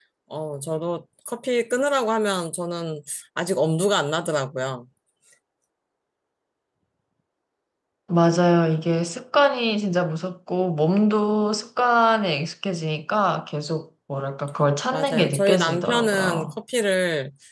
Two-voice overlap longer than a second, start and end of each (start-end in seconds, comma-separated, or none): 14.9-16.5